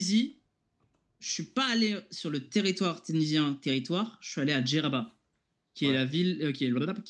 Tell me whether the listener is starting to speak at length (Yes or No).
No